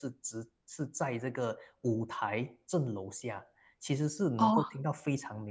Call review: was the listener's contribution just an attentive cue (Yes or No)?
Yes